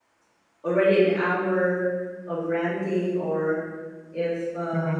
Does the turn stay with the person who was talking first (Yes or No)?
Yes